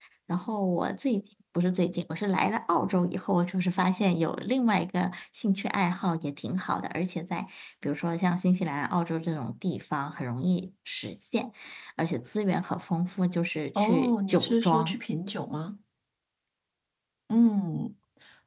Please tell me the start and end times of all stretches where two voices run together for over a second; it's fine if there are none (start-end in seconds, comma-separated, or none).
13.8-15.0